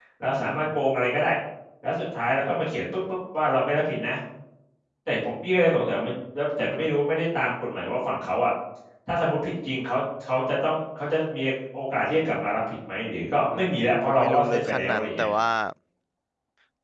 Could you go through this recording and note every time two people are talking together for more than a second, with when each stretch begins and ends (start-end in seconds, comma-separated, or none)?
14.0-15.3